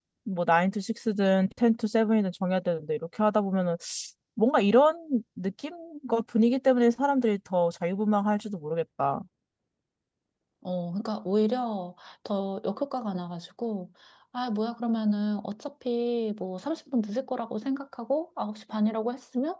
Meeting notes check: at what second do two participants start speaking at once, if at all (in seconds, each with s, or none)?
none